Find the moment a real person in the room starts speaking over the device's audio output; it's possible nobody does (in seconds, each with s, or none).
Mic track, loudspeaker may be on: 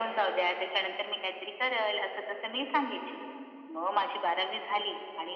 none